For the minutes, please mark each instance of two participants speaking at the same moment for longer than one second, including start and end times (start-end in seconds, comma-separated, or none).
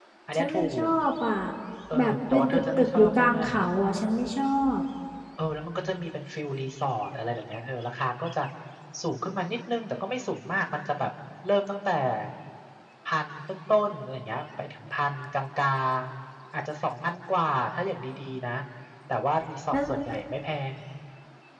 2.0-3.4